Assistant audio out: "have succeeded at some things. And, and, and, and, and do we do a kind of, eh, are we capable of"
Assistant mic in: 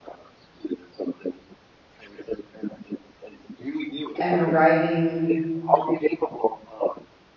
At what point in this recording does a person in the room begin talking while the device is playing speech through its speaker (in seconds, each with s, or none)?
4.2 s